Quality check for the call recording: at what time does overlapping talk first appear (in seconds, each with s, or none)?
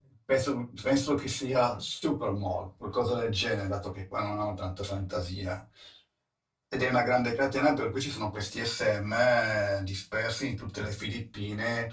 none